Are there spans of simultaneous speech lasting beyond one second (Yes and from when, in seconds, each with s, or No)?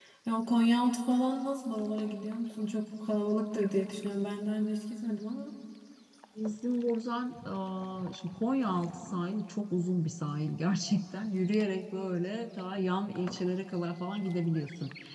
No